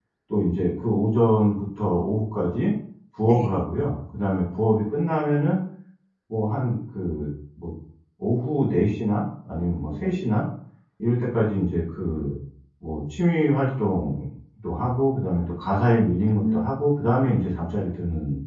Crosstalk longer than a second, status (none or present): none